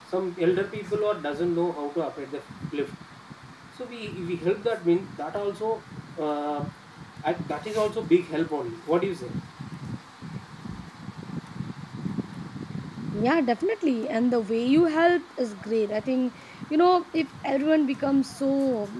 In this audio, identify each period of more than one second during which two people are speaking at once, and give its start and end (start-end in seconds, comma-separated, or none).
none